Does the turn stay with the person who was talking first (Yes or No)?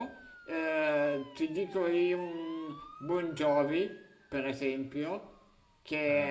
Yes